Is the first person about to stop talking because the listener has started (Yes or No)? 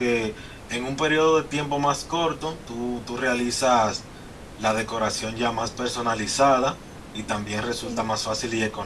No